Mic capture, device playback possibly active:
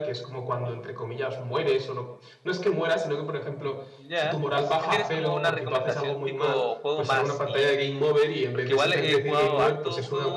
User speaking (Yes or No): Yes